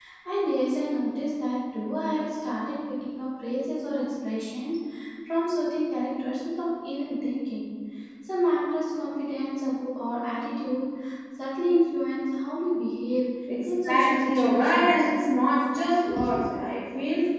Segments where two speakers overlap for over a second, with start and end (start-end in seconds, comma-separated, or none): 13.7-15.1